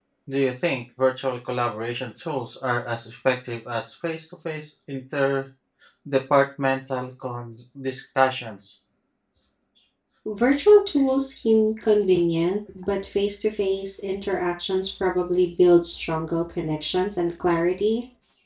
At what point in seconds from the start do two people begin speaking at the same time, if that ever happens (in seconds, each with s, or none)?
none